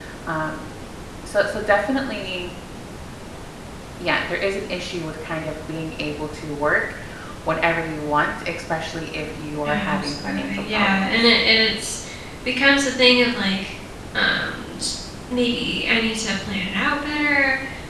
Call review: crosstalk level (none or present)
present